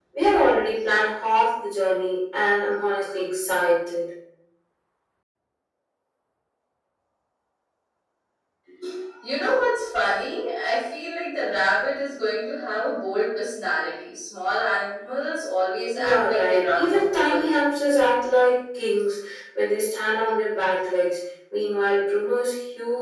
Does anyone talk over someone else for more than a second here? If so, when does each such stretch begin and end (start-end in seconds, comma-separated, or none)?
15.9-17.5